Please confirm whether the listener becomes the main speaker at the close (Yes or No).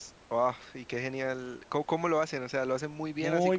Yes